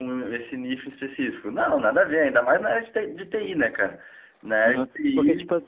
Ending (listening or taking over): taking over